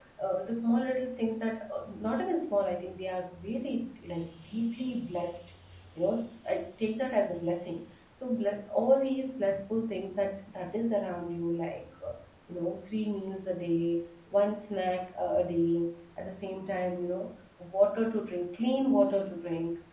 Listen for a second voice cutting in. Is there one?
No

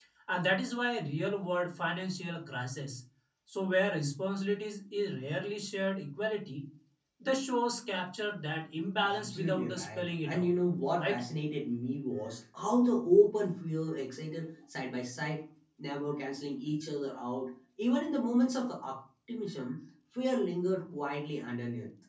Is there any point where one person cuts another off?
Yes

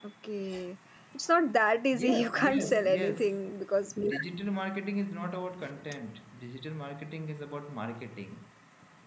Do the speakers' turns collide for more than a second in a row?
Yes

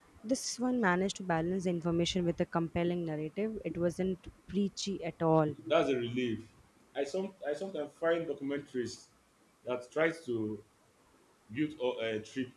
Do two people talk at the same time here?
No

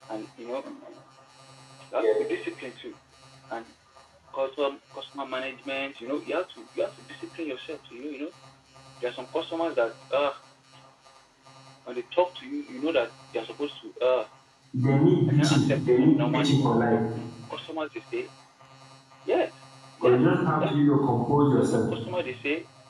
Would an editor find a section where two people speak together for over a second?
Yes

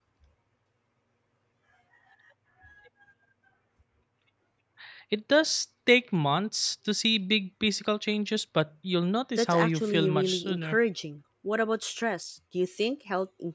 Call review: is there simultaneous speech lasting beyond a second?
Yes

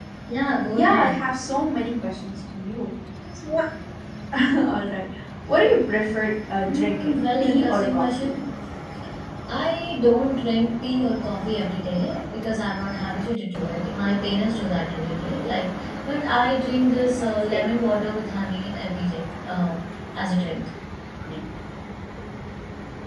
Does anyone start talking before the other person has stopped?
Yes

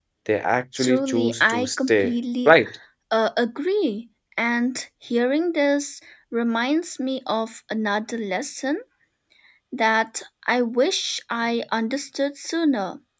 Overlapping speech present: Yes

